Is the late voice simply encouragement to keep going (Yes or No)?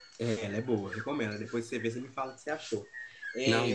Yes